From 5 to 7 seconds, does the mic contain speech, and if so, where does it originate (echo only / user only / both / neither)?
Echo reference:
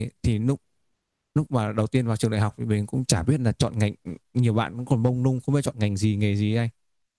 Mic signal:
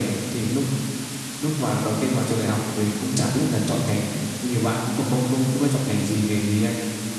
echo only